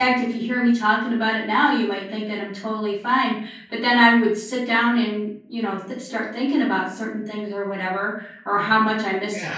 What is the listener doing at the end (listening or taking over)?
listening